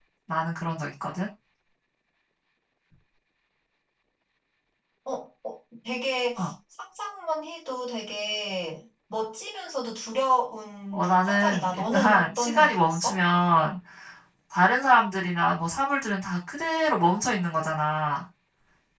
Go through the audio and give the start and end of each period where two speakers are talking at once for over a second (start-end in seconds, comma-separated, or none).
10.9-13.2